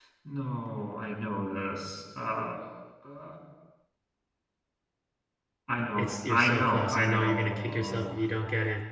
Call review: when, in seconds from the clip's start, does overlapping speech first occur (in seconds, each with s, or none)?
6.0 s